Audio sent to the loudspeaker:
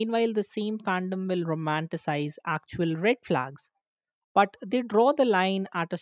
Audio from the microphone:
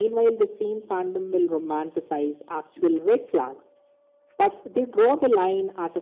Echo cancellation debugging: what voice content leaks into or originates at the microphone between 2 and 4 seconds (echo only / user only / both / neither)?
echo only